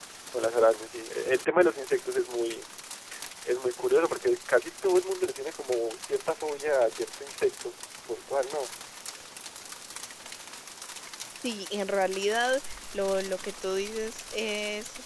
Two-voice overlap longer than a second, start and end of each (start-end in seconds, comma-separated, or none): none